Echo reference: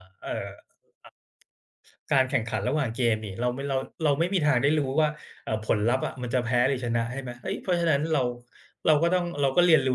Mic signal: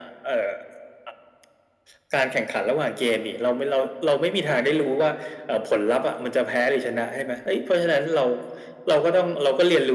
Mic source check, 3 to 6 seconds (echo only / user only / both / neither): echo only